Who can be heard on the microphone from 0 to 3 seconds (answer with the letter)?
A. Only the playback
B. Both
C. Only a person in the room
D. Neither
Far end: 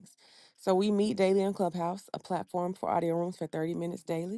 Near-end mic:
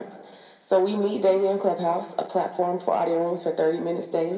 A